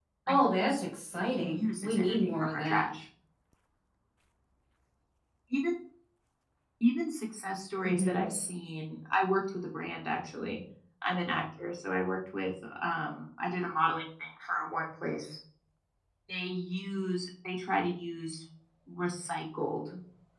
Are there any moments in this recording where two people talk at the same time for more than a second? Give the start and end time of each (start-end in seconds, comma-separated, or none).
1.2-2.8